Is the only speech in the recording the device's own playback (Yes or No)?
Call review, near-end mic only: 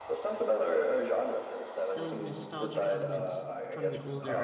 No